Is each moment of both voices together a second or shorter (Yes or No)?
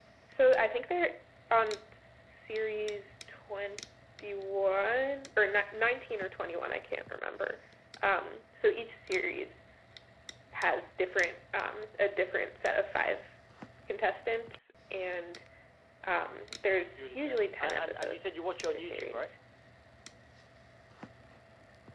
No